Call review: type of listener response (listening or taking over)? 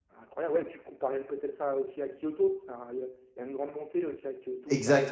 taking over